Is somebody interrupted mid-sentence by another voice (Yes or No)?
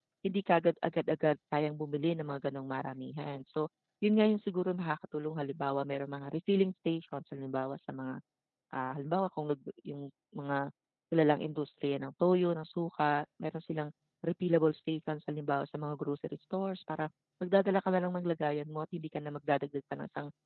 No